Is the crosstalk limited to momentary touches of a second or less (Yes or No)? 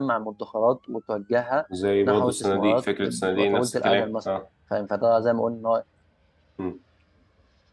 No